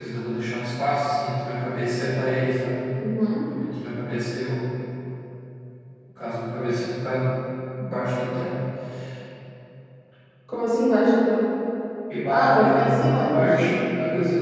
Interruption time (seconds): 12.3 s

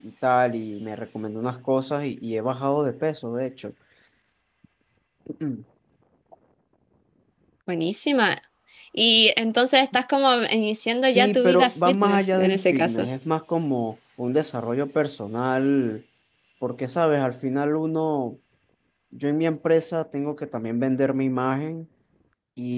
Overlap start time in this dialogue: 11.0 s

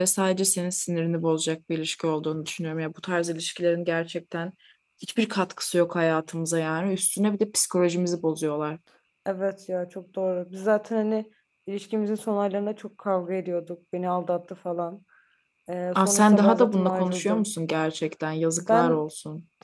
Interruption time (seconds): 16.0 s

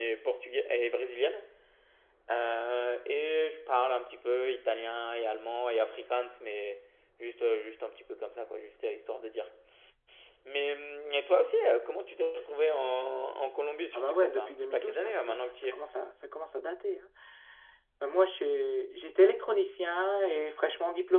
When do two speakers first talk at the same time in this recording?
14.0 s

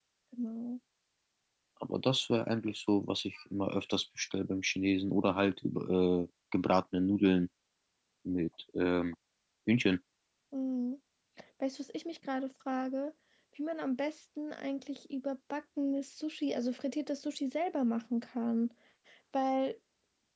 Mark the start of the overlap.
none

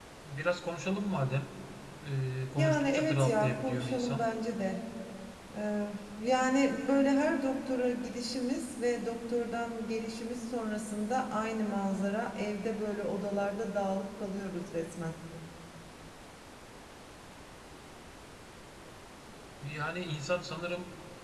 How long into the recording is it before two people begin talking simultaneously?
2.6 s

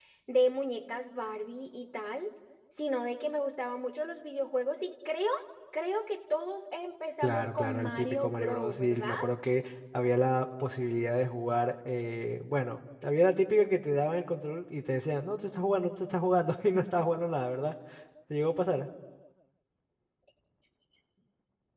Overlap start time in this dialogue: 7.2 s

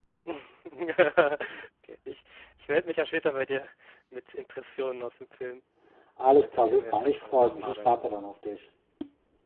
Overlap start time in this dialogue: 6.3 s

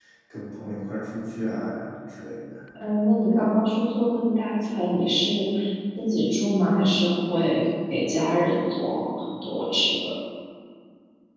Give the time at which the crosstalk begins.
none

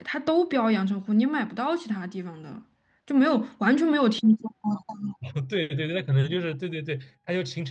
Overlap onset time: none

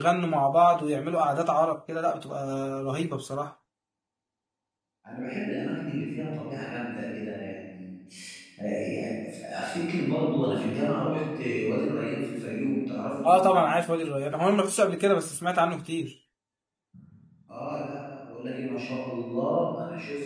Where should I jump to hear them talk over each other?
none

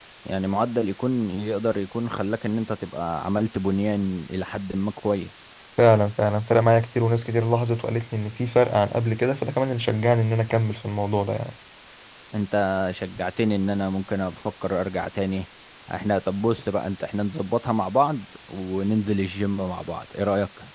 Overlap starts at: none

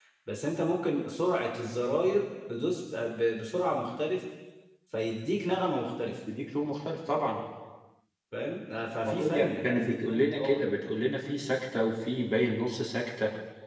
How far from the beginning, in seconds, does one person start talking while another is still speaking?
9.0 s

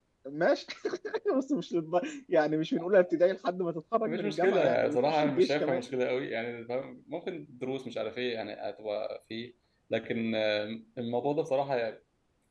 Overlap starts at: 4.0 s

